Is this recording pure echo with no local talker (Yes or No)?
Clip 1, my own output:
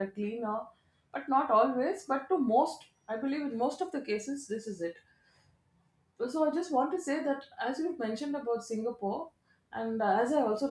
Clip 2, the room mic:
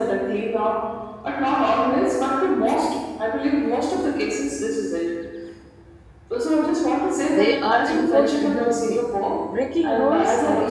No